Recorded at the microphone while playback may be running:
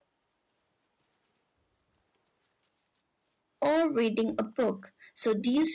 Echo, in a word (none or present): none